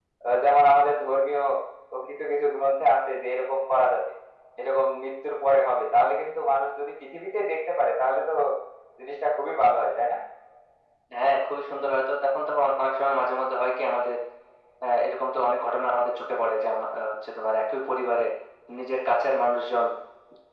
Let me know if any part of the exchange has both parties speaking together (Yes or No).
No